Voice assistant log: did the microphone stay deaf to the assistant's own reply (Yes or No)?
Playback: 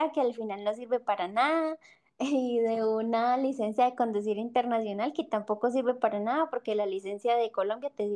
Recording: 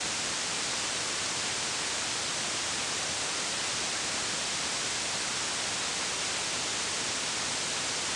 Yes